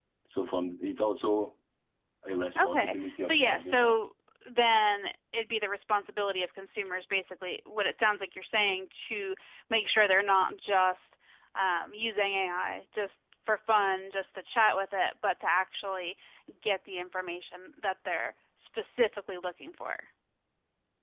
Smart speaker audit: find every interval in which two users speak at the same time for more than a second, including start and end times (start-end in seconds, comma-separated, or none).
2.6-4.0